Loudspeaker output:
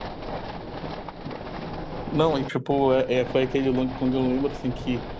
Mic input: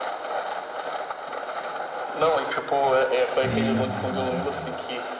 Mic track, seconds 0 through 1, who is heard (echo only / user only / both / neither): neither